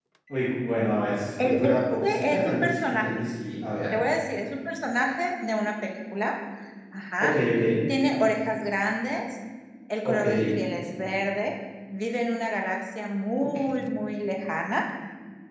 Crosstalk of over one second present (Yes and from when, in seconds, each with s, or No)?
Yes, from 1.4 s